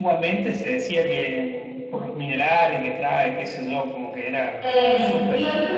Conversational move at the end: taking over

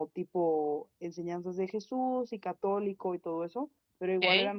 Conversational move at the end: listening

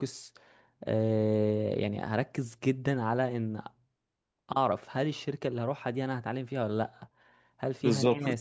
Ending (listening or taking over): listening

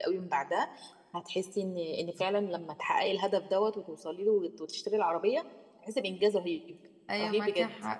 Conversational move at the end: taking over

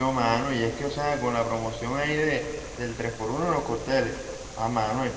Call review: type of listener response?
listening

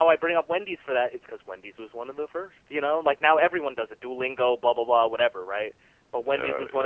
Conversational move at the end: taking over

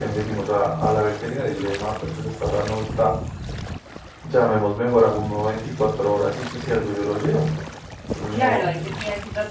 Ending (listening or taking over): taking over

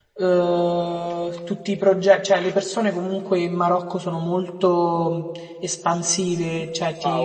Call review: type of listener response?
taking over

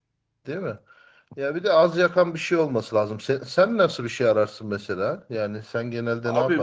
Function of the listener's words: taking over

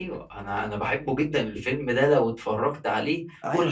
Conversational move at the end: taking over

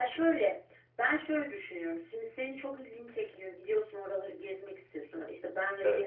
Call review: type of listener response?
listening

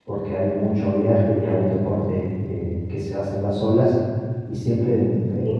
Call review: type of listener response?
listening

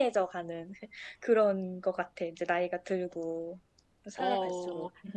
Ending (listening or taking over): taking over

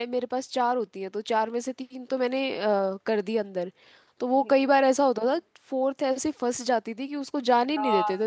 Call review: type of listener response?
taking over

